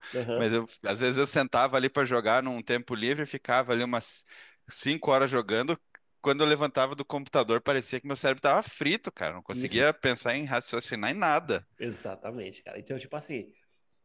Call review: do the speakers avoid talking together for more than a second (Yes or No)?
Yes